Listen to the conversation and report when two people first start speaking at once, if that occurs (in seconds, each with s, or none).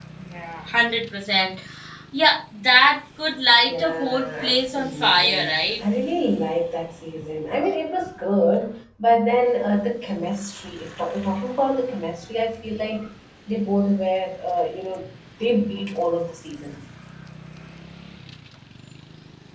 3.7 s